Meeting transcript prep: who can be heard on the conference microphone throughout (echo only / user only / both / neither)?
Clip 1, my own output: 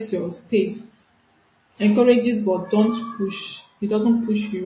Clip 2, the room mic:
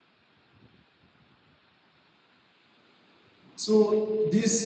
user only